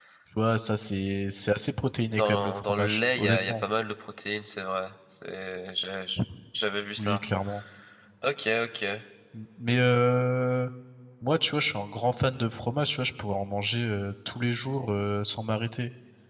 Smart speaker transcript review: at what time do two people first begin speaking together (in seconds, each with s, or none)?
2.1 s